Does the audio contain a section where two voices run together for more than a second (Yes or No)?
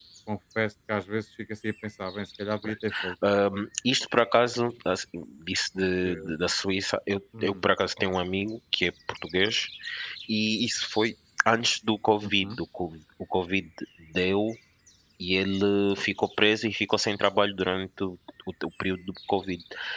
No